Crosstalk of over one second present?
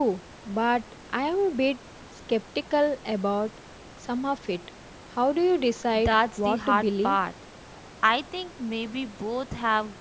Yes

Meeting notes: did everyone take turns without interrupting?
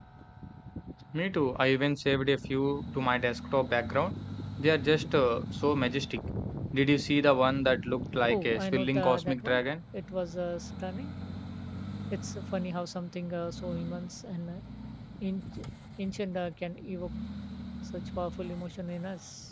No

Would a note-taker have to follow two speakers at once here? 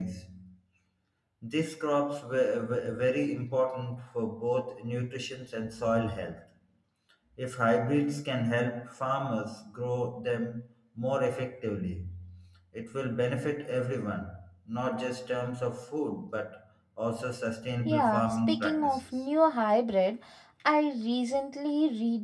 Yes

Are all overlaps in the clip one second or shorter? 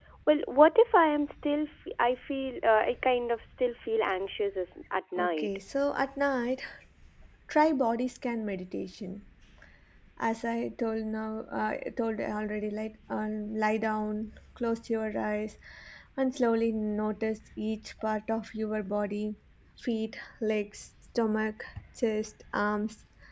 Yes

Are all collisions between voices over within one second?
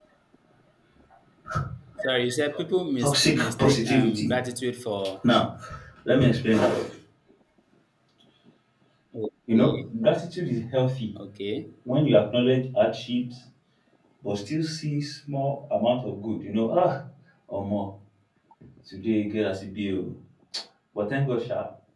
No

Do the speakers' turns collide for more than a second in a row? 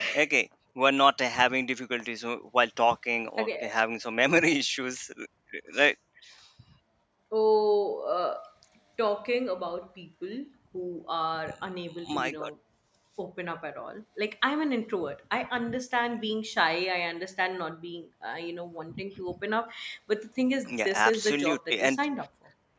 Yes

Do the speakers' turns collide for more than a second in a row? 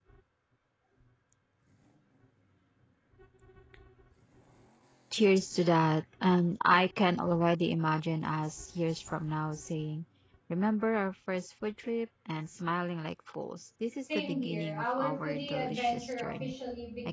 Yes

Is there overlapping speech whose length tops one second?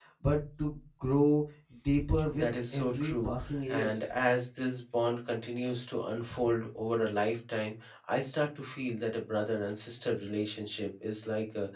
Yes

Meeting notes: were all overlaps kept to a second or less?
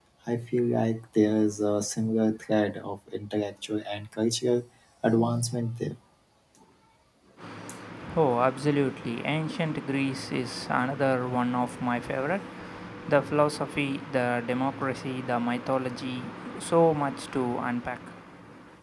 Yes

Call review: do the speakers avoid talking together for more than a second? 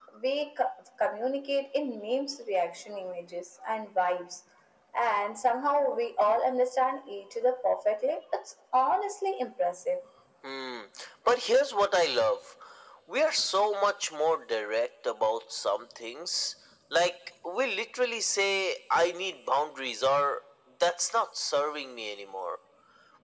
Yes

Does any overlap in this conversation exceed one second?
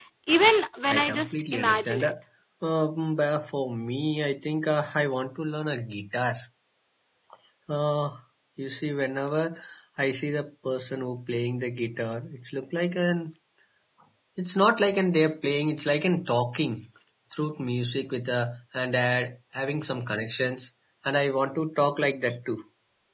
Yes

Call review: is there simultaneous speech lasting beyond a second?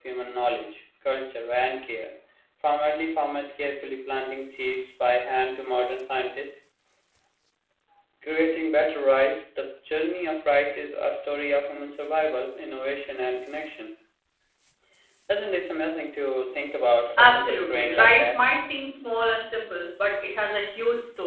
Yes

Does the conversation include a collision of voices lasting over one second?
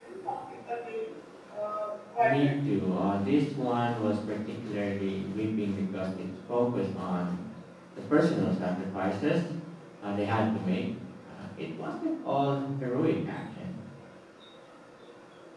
No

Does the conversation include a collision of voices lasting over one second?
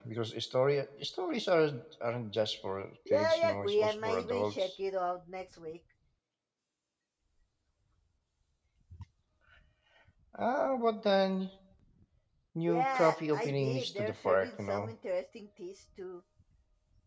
Yes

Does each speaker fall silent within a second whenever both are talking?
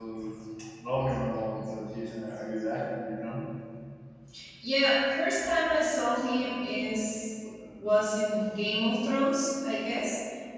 Yes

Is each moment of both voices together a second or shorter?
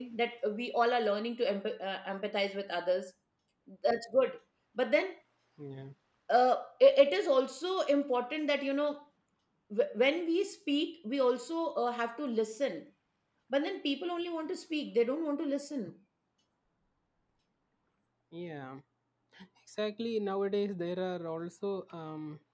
Yes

